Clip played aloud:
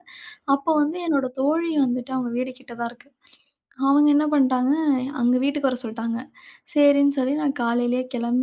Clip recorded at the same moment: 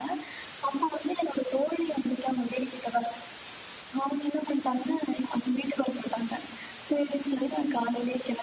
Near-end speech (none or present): none